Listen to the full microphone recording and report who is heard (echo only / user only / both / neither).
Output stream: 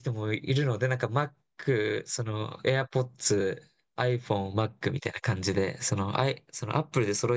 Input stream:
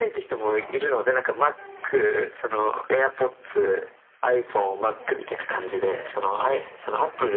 both